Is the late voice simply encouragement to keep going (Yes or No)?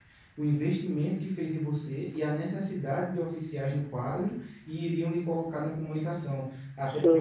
Yes